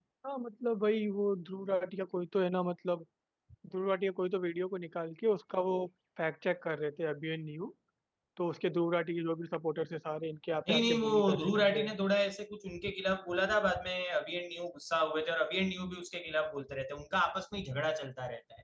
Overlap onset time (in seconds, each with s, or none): 10.7 s